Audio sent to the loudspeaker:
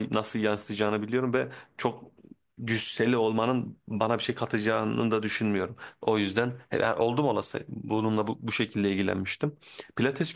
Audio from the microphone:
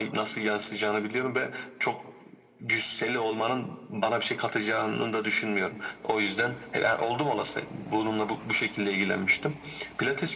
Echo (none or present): present